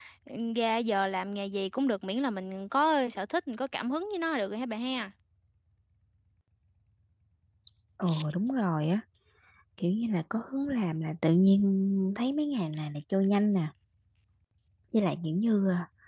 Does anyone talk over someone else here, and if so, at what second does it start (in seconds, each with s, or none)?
none